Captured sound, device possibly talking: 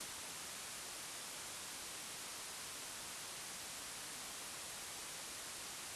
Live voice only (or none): none